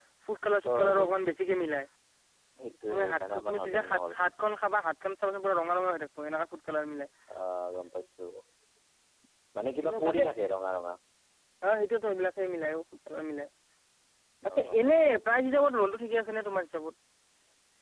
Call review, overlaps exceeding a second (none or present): present